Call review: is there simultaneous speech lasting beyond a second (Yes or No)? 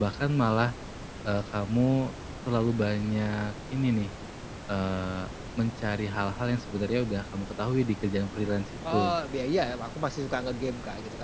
No